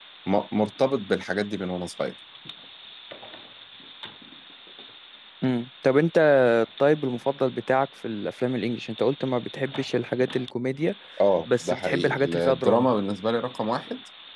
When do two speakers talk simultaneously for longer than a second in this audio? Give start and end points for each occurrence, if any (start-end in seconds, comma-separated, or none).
11.6-12.9